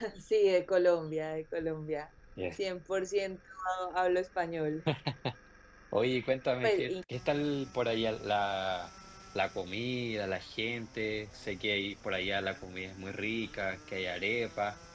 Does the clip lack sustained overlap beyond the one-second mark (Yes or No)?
Yes